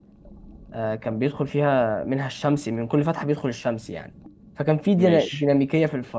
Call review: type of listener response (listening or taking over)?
listening